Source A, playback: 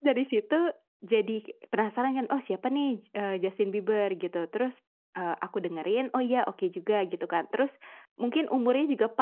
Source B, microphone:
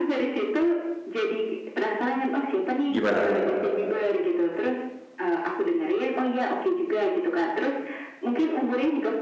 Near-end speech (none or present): present